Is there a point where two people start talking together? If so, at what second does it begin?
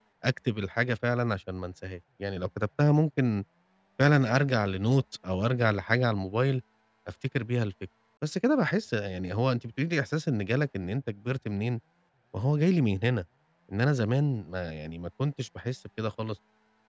none

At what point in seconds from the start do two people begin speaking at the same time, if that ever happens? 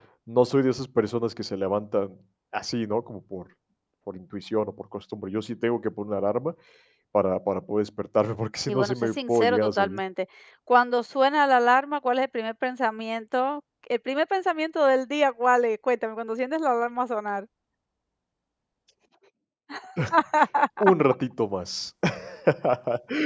8.7 s

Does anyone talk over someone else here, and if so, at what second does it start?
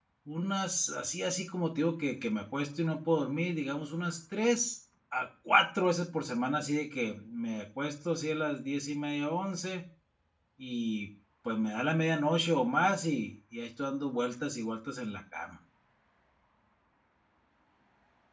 none

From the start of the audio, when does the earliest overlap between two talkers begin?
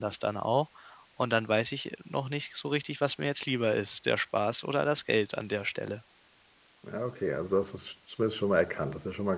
none

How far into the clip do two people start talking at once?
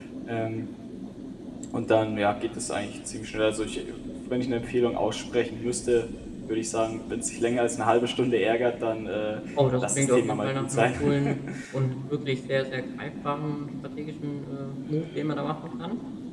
9.6 s

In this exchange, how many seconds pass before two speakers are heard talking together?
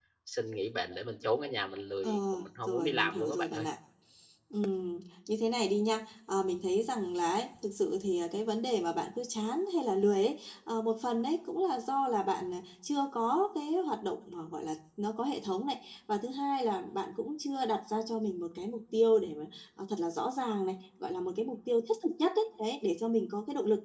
2.0 s

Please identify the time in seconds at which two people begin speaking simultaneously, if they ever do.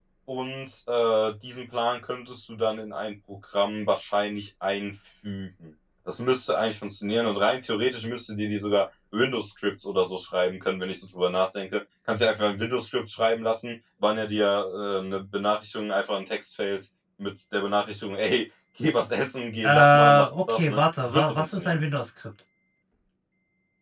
19.6 s

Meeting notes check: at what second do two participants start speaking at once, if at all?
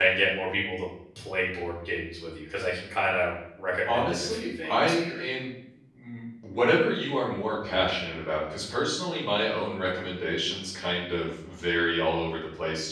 3.9 s

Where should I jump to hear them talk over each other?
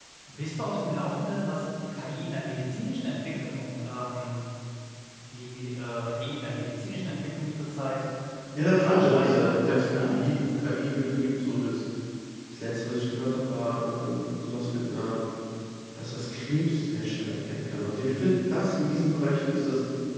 8.7 s

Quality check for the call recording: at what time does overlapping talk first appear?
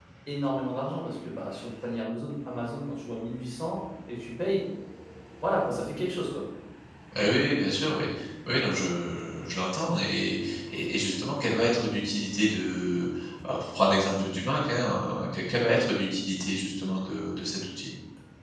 none

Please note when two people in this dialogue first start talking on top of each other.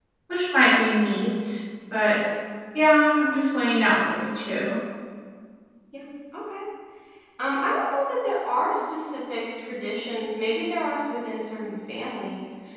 none

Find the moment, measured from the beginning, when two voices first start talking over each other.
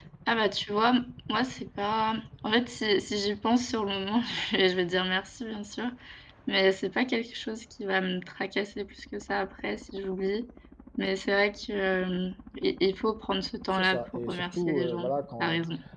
13.7 s

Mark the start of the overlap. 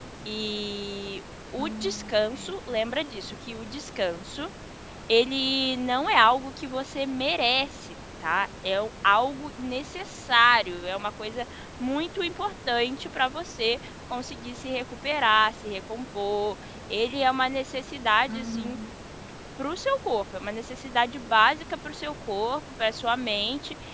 1.6 s

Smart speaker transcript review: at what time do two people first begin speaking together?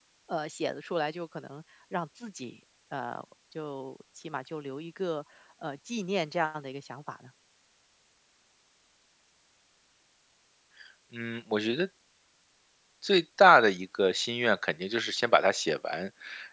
none

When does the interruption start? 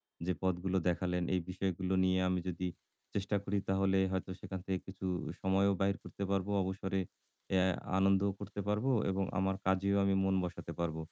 none

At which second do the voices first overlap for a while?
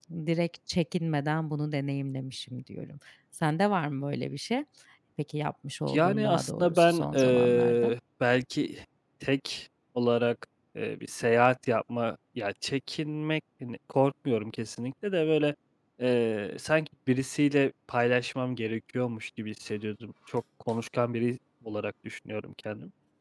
5.9 s

